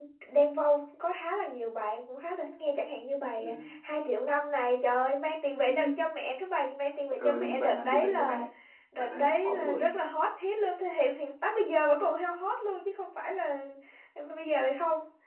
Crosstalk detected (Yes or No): Yes